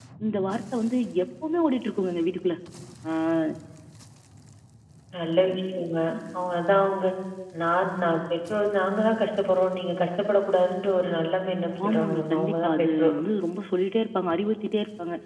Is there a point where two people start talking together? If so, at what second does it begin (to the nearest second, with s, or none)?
12 s